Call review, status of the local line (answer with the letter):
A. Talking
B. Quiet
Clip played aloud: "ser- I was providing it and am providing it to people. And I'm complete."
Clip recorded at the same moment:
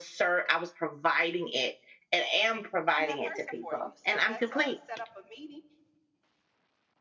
A